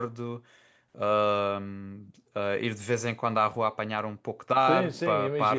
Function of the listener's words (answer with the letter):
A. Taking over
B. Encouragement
A